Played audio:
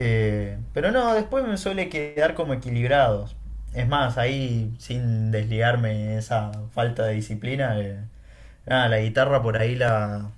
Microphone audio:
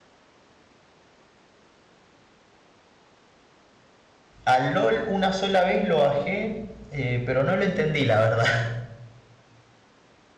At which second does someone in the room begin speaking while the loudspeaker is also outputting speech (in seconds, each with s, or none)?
4.4 s